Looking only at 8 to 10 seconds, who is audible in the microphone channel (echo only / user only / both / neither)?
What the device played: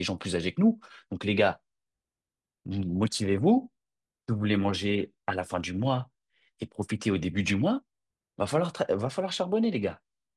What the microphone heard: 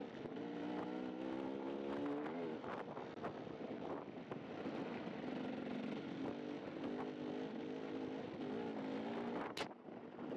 neither